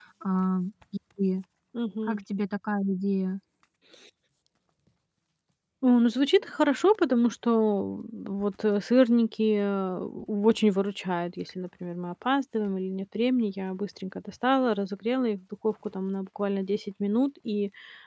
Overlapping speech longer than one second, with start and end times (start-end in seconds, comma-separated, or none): none